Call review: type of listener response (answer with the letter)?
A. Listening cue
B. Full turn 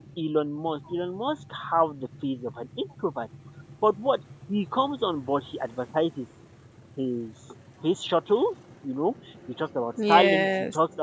A